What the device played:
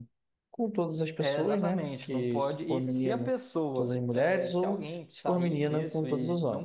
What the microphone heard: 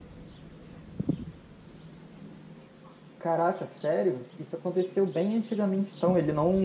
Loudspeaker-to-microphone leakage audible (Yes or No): No